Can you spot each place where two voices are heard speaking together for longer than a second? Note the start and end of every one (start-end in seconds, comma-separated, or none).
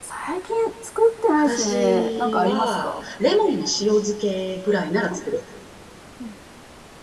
1.3-2.9